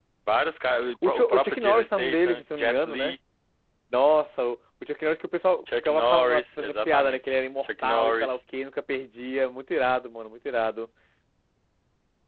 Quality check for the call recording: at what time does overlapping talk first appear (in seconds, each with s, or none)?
1.0 s